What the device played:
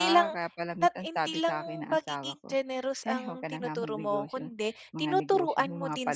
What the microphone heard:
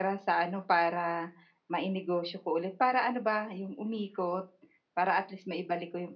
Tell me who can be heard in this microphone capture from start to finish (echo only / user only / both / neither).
user only